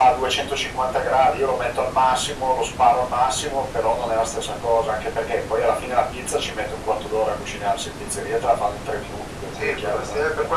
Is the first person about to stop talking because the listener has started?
Yes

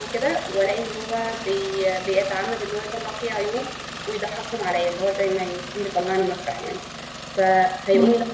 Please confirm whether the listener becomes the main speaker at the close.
No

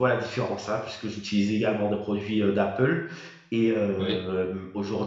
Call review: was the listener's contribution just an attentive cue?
Yes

